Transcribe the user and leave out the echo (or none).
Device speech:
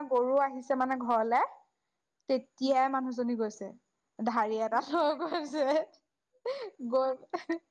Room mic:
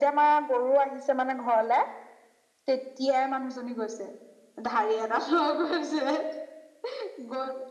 none